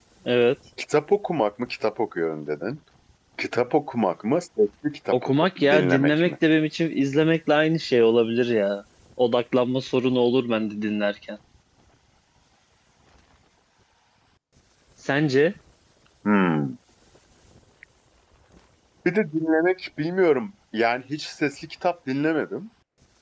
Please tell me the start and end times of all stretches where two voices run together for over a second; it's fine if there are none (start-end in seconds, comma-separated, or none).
5.1-6.3